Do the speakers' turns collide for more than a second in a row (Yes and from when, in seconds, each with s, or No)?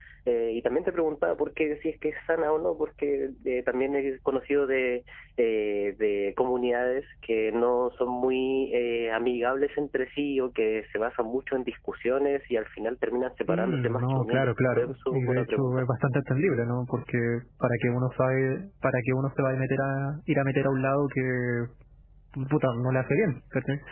Yes, from 13.5 s